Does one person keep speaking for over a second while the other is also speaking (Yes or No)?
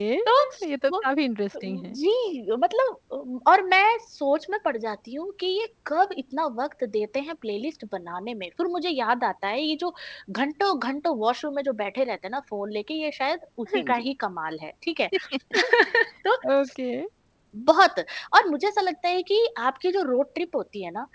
No